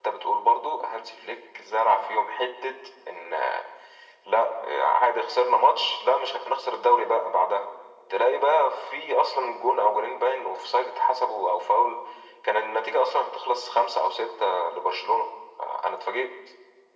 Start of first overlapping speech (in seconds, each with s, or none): none